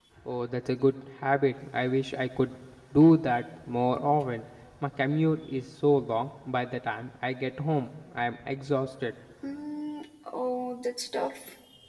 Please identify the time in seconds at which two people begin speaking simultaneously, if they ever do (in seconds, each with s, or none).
none